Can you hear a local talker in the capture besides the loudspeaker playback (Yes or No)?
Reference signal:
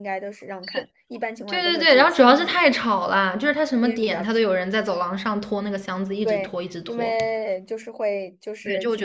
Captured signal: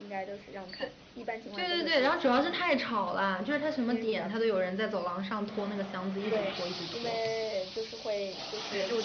No